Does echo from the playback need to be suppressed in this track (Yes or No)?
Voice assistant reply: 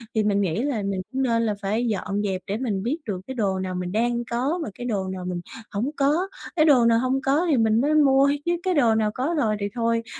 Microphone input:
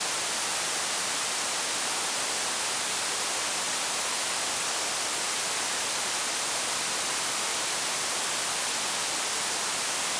No